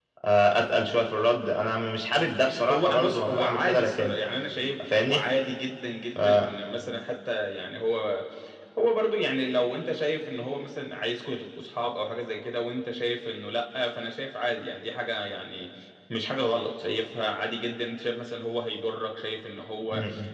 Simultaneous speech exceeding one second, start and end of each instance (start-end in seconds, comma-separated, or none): 2.7-4.2